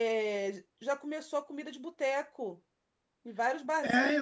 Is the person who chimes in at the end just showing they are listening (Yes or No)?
No